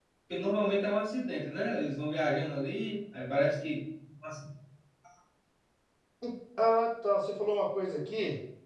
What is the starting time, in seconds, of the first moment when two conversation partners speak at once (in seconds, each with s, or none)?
none